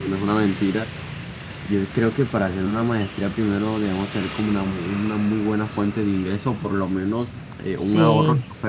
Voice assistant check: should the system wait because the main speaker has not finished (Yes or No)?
Yes